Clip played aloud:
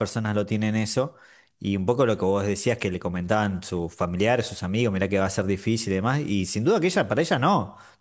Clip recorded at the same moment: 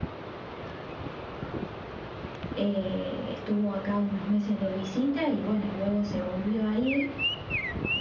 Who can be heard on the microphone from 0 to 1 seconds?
neither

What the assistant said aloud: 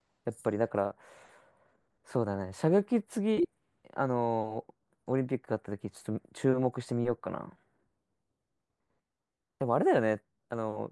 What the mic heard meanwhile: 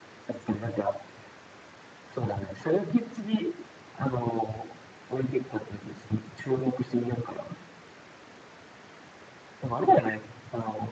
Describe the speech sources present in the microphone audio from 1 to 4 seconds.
echo only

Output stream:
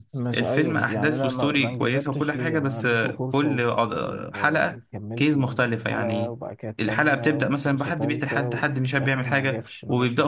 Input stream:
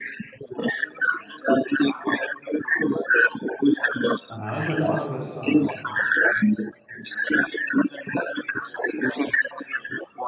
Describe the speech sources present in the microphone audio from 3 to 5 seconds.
both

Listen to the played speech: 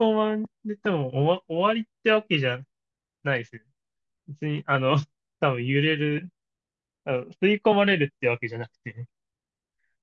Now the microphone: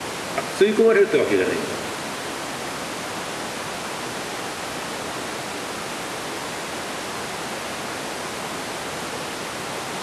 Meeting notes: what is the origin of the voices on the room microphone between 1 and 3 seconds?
user only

